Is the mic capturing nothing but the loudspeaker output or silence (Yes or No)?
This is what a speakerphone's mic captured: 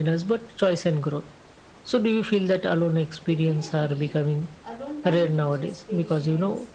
No